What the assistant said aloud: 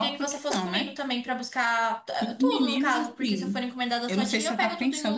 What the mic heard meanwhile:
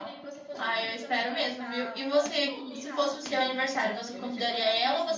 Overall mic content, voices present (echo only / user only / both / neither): both